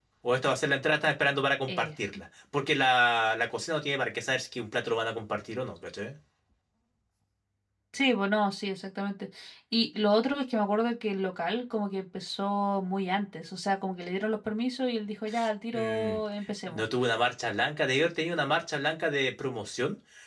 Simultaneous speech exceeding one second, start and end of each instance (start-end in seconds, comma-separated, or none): none